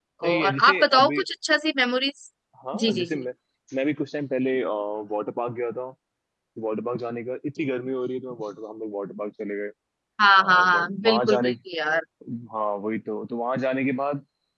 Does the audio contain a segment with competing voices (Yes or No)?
Yes